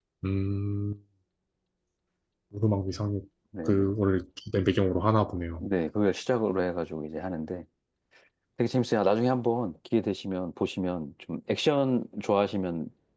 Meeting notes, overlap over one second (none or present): none